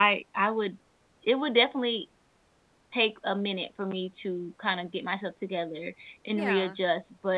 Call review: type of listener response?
listening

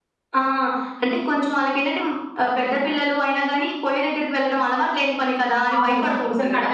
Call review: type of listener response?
taking over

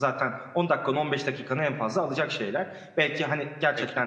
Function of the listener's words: listening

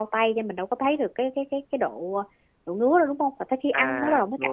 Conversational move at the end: taking over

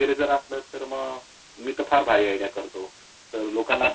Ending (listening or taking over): taking over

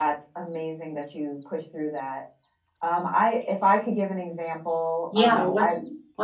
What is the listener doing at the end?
taking over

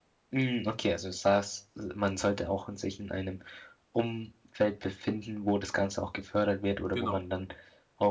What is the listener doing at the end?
listening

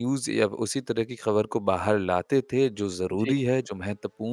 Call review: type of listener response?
listening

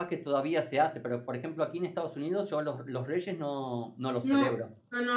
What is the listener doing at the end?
taking over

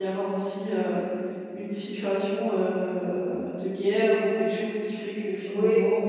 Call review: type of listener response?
taking over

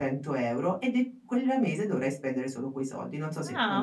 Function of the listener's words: taking over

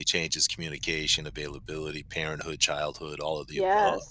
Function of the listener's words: taking over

